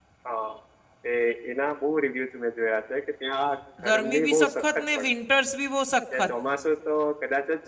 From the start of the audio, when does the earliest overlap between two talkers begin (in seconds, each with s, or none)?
3.8 s